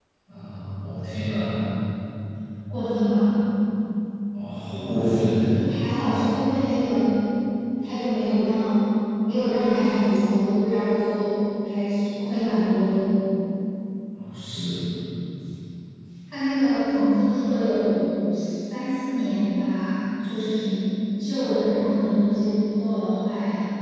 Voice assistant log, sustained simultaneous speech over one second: none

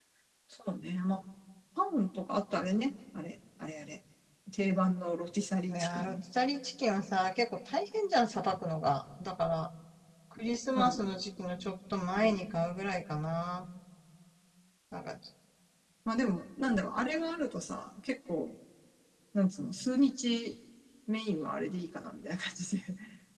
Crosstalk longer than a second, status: none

